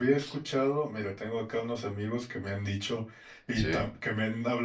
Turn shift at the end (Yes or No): No